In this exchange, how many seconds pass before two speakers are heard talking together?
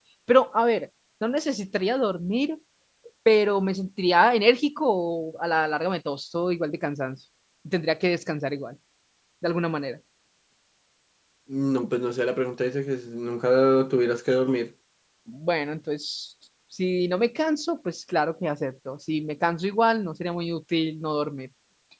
none

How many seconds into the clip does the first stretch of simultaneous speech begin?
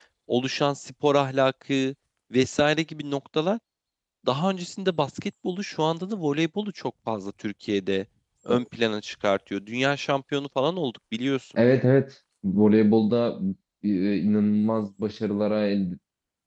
none

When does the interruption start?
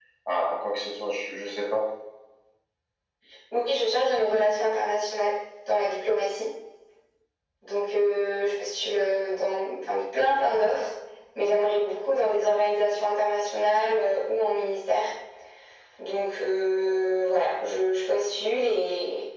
none

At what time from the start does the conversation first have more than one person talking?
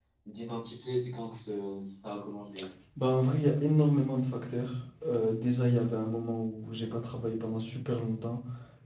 none

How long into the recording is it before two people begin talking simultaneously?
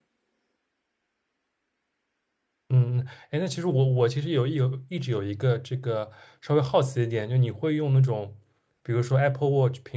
none

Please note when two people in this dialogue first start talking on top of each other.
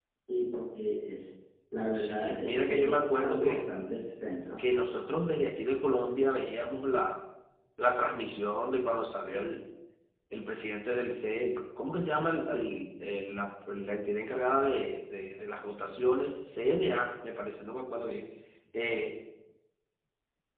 2 s

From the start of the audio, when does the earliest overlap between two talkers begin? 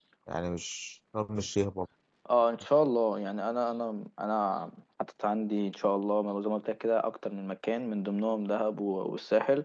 none

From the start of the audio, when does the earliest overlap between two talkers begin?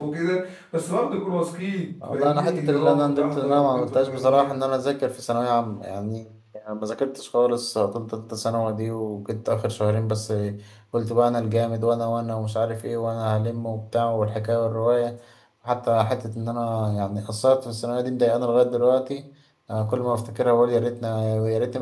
2 s

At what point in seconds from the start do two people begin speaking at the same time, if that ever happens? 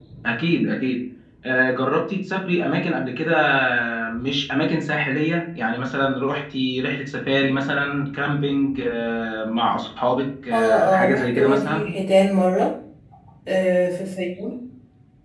11 s

